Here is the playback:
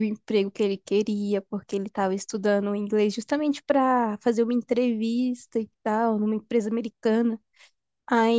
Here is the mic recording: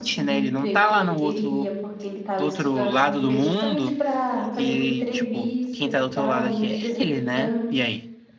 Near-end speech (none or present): present